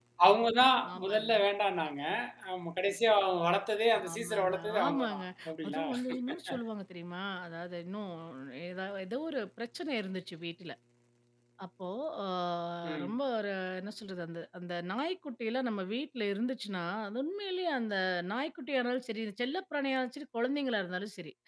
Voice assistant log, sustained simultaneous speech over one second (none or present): present